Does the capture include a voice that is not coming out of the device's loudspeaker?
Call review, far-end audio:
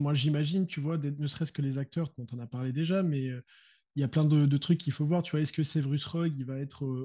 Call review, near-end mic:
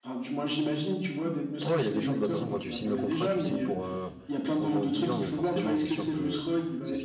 Yes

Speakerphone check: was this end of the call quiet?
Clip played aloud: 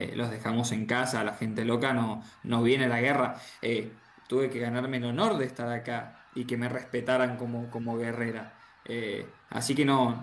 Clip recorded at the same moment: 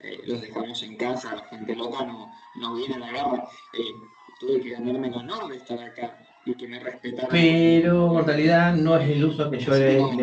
No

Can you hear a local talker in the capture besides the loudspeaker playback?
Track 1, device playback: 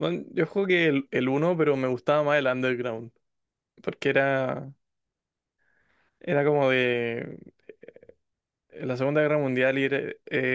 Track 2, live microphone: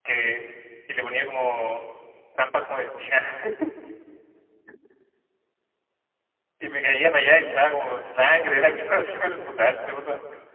Yes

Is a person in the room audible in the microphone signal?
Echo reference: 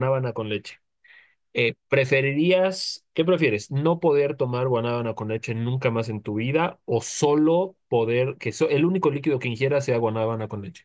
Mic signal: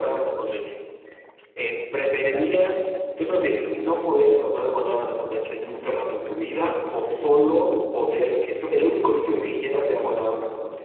Yes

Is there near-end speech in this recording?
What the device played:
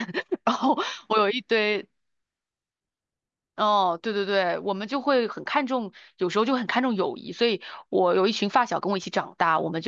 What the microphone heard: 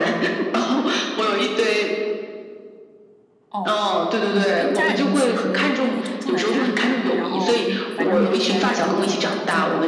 Yes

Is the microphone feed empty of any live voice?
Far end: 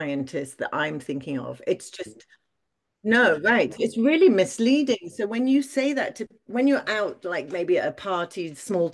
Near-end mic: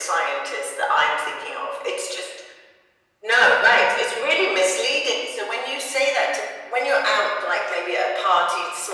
Yes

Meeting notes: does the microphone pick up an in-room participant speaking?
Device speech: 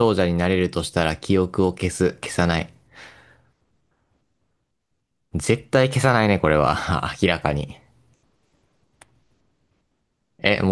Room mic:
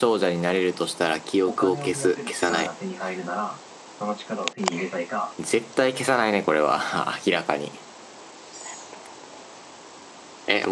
Yes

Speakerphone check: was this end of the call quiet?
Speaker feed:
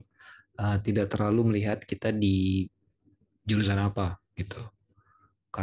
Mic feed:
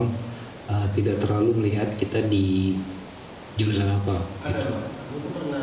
No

